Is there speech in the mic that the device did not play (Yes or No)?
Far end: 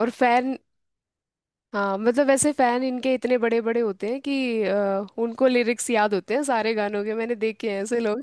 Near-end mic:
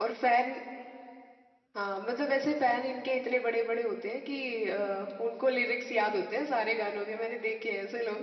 No